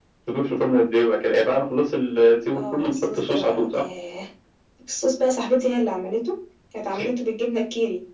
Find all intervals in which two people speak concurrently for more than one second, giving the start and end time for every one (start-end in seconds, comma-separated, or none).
2.5-3.8